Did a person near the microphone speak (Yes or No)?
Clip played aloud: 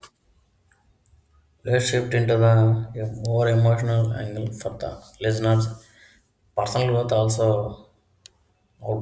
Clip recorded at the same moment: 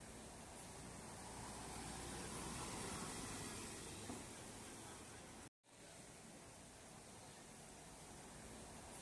No